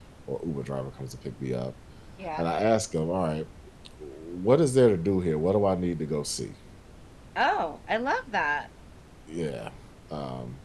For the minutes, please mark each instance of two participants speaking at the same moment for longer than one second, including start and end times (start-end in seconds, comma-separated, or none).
none